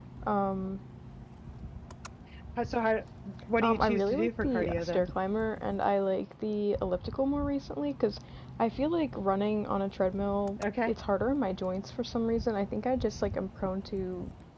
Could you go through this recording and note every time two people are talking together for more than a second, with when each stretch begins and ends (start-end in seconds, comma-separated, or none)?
3.6-5.1